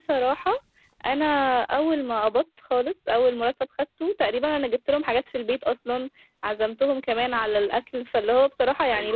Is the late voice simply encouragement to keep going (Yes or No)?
No